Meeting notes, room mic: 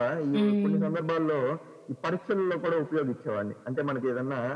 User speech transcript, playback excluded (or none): హ్మ్.